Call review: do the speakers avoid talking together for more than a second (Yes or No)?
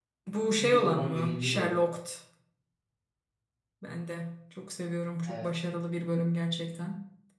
No